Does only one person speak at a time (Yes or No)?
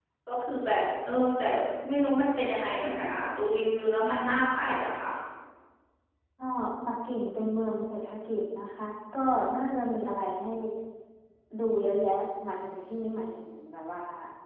Yes